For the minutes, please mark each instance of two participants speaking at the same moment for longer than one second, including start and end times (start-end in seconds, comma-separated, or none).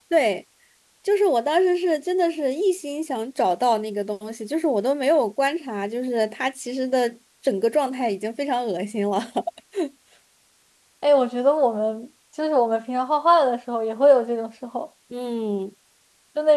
none